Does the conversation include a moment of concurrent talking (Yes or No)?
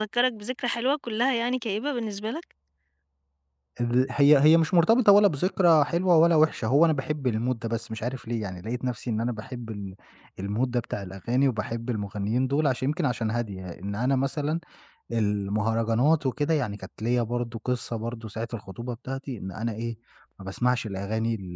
No